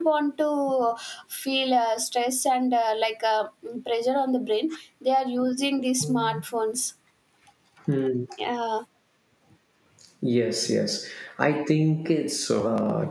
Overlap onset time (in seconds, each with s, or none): none